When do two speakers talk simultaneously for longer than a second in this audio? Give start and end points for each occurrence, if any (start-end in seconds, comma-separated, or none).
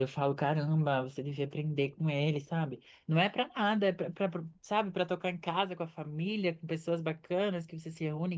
none